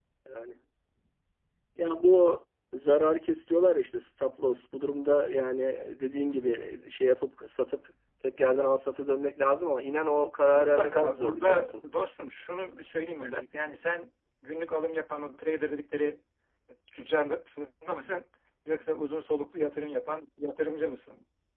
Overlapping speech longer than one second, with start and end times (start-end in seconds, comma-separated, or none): 10.5-11.7